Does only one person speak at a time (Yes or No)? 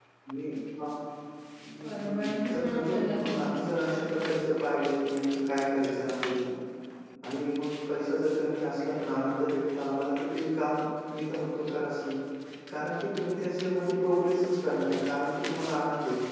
No